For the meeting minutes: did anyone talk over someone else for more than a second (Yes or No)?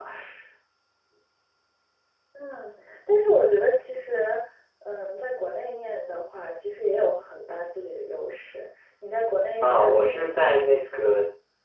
Yes